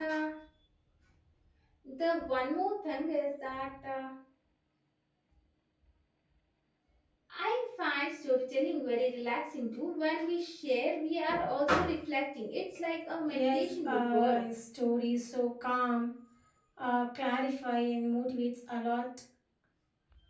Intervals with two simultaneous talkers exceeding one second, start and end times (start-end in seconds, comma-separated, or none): 13.2-14.6